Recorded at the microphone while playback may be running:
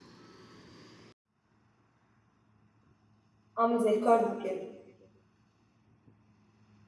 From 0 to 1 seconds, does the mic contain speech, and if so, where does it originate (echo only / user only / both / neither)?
neither